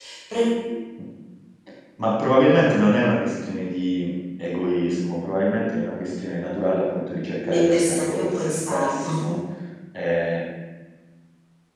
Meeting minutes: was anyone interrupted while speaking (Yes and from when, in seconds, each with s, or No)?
Yes, from 7.4 s